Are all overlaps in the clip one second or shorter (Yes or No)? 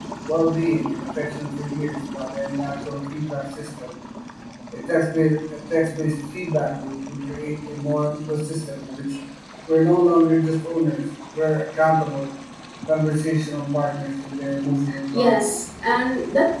Yes